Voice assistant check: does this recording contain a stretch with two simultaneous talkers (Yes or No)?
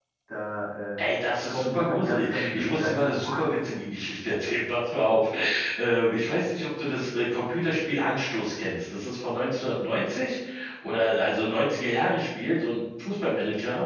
Yes